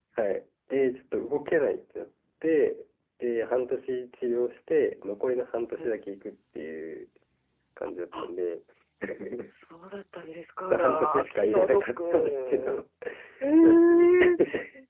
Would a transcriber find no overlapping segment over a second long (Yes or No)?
No